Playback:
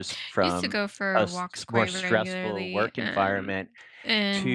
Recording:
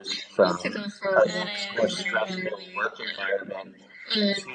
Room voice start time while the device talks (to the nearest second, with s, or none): 1 s